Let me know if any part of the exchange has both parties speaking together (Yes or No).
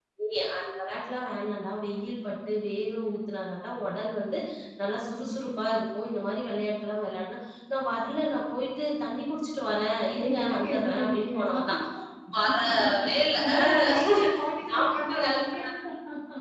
Yes